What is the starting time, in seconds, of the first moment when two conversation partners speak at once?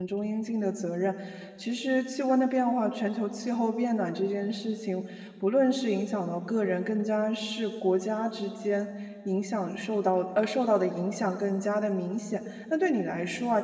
none

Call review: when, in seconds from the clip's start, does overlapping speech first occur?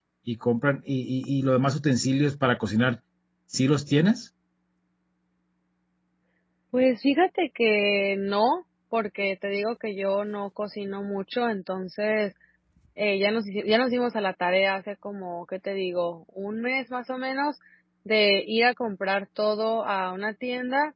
none

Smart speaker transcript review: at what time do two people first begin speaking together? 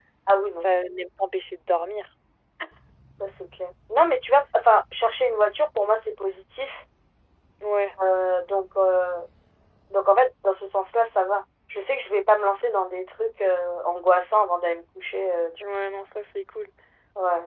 none

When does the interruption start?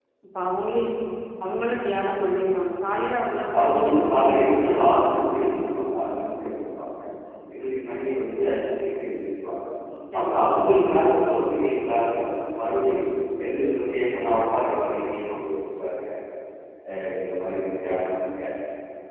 4 s

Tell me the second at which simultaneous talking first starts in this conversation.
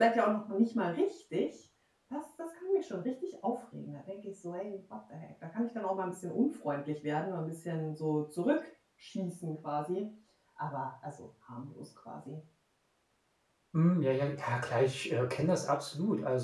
none

